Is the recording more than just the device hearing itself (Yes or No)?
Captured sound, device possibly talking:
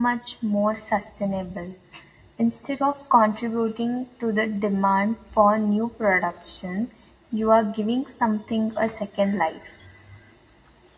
Yes